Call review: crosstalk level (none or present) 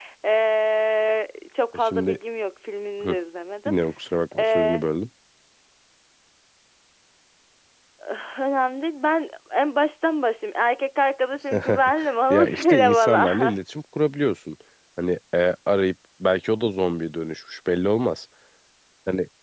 present